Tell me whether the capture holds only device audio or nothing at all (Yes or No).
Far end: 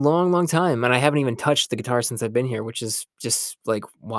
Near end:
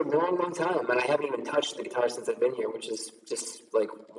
Yes